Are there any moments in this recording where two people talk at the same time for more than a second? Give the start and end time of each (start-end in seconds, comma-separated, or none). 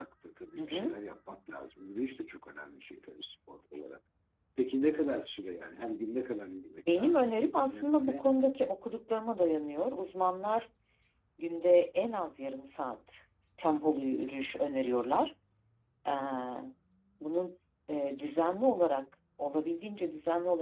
6.9-8.3